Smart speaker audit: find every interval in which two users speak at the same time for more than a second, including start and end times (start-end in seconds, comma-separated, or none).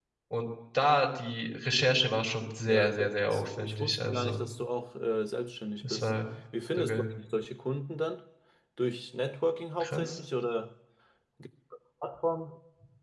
2.7-4.5